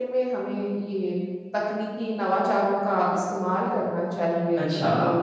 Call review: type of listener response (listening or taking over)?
taking over